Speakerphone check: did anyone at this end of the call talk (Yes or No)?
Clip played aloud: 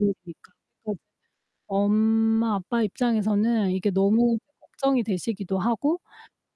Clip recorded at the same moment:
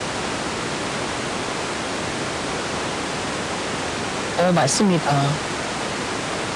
Yes